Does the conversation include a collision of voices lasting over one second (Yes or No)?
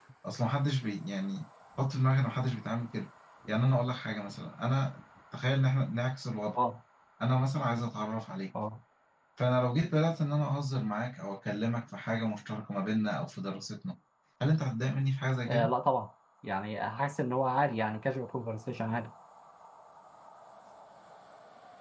No